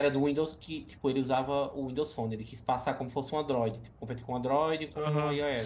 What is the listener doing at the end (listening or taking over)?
taking over